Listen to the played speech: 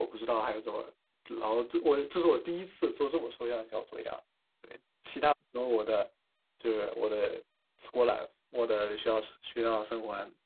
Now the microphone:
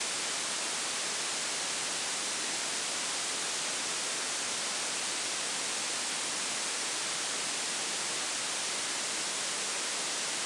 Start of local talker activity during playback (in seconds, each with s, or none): none